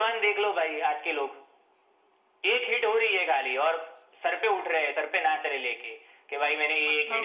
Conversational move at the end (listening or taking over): listening